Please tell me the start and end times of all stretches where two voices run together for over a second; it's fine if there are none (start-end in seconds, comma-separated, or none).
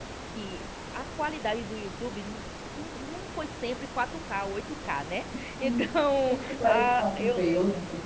6.3-7.6